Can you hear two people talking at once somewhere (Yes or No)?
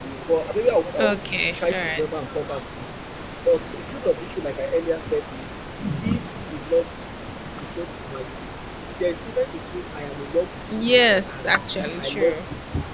Yes